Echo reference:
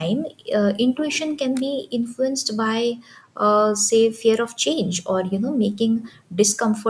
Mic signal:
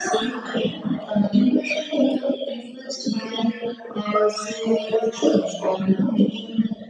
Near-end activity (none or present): none